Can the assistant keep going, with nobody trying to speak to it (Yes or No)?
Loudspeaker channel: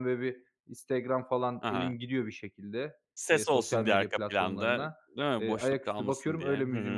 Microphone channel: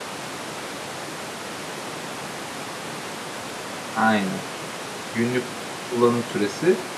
No